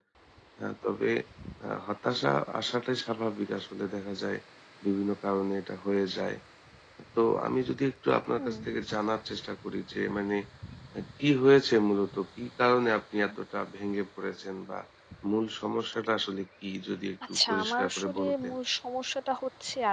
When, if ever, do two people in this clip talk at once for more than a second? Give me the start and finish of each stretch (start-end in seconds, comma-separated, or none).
17.3-18.5